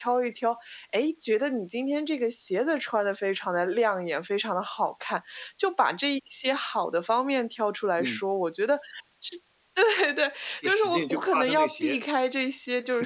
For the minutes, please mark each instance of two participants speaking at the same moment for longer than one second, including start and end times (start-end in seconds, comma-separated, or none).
10.6-12.0